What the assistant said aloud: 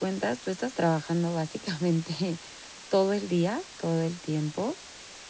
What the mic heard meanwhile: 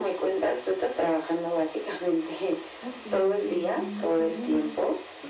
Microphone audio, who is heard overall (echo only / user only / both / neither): both